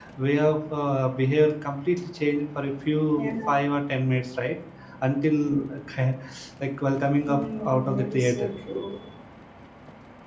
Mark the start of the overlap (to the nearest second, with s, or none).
7 s